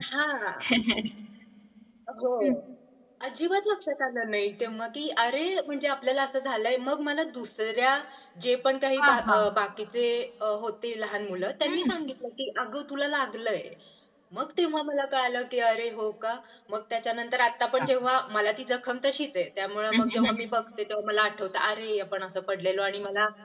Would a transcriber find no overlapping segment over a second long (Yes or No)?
Yes